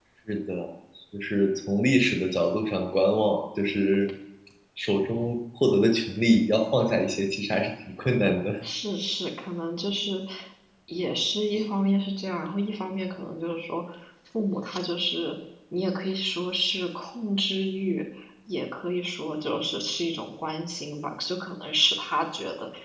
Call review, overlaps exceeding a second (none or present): none